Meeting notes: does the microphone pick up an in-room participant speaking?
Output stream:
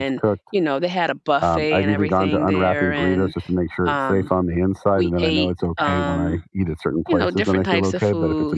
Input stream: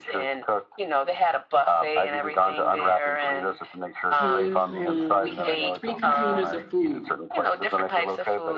Yes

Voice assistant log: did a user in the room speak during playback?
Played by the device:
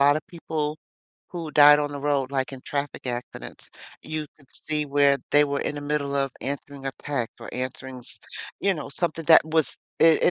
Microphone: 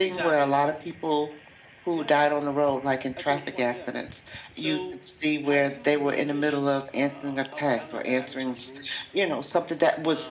Yes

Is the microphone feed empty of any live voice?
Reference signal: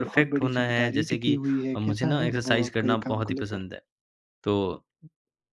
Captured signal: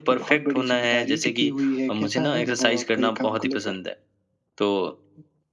Yes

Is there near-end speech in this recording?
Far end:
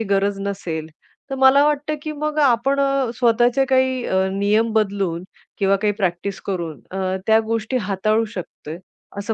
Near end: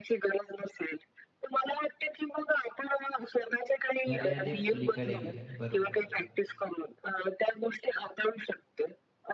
Yes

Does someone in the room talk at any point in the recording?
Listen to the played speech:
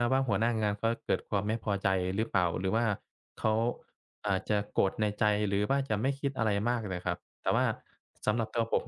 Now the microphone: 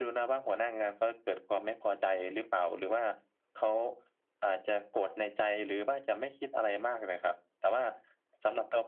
No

